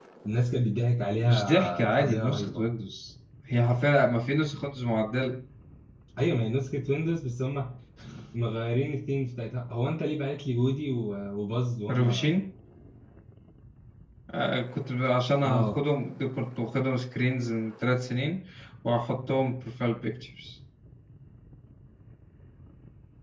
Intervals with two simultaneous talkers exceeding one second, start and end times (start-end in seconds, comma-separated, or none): 1.2-2.6